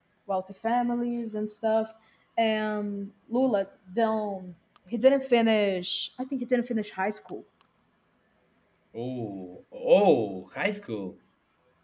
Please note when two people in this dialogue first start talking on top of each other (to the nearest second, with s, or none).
none